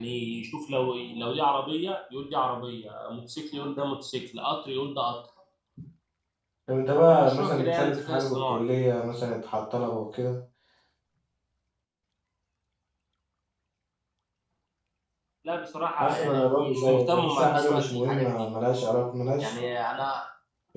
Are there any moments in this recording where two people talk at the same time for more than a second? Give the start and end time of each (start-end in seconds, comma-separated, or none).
7.1-8.6, 16.0-18.5